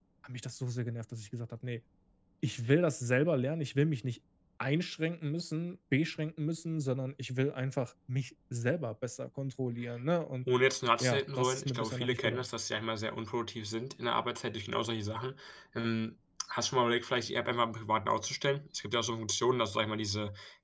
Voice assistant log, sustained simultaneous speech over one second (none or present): present